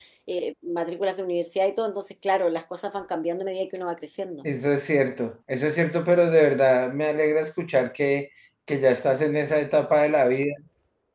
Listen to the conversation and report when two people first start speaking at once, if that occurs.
none

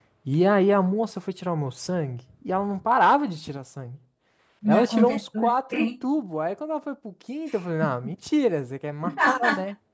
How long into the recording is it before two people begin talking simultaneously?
4.7 s

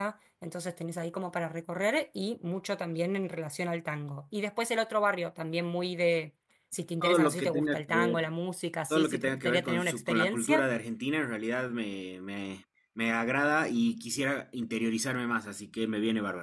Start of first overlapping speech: 7.0 s

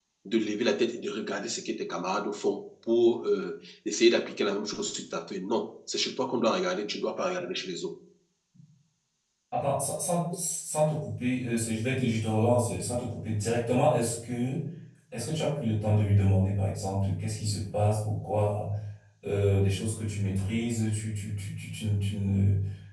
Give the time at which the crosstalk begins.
none

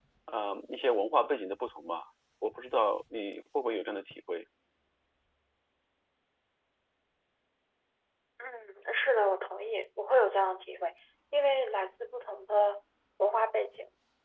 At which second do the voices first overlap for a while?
none

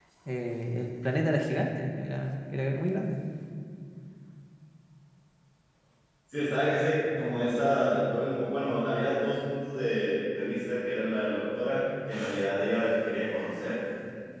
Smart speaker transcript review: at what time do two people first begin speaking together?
none

